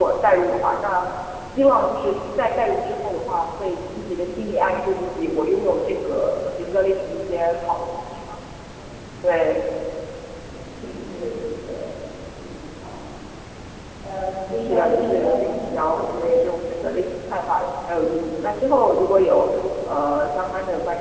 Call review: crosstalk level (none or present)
present